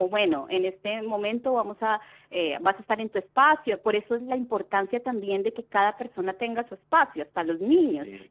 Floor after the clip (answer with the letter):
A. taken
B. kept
B